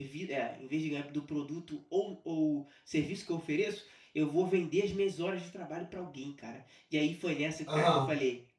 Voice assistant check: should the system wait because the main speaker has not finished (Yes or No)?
Yes